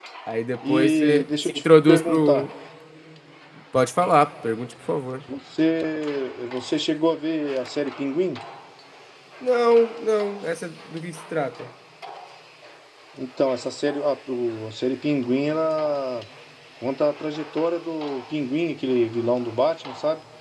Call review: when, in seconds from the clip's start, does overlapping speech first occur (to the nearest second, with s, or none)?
1 s